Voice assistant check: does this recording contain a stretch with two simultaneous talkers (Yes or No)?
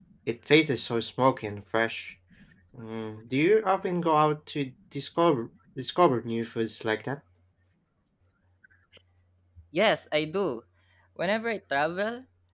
No